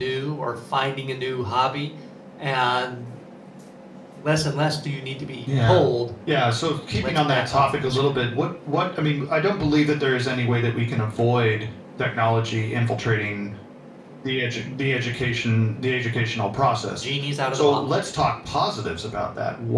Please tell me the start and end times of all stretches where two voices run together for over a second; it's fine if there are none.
7.0-8.2

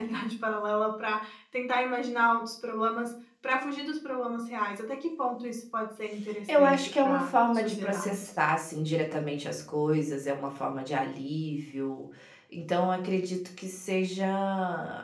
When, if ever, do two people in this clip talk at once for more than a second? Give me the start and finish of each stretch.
6.6-8.2

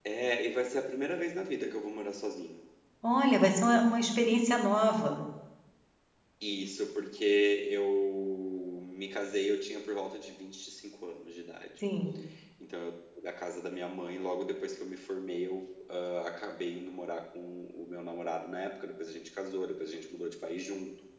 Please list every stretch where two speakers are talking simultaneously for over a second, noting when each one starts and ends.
none

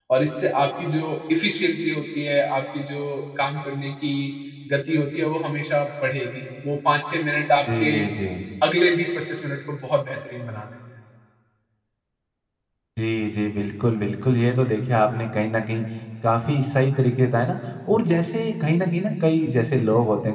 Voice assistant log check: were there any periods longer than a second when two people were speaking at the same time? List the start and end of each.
none

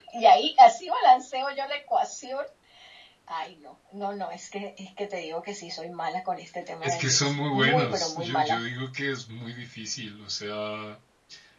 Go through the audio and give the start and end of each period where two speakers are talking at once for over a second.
6.8-8.6

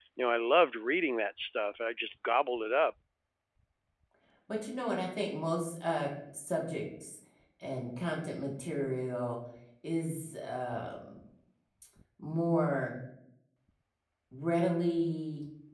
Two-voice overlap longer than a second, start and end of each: none

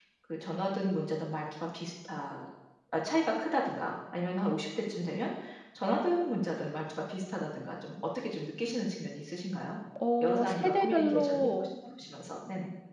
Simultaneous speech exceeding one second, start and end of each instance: 10.2-11.7

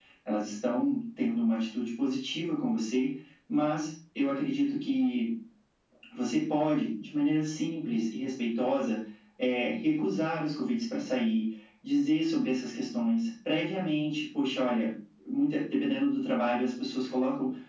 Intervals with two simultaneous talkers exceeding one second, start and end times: none

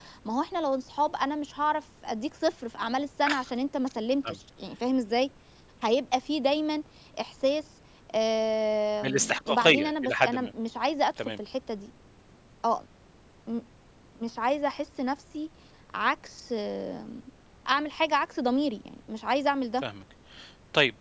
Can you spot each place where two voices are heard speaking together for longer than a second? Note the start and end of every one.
9.0-10.5

